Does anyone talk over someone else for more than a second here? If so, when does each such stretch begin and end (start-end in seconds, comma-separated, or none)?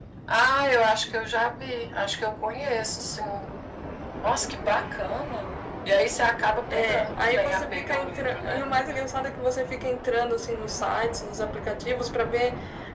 6.7-8.7